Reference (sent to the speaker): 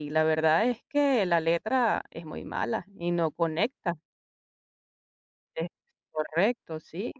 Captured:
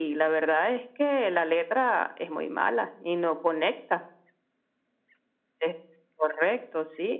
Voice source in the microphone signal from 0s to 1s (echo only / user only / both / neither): echo only